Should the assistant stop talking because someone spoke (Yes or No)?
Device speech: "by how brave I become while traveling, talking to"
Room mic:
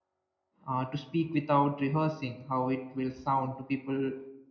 Yes